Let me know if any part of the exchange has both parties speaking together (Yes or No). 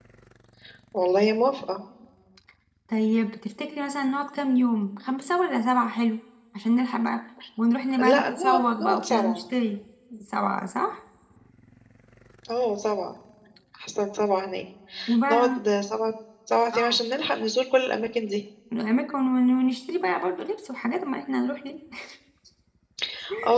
Yes